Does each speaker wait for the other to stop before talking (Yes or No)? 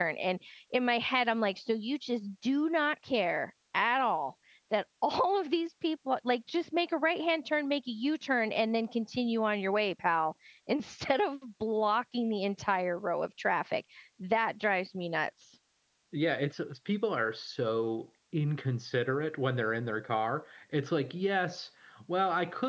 Yes